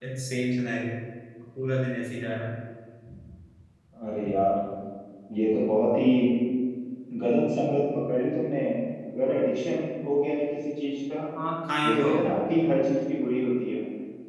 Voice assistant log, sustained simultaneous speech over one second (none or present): none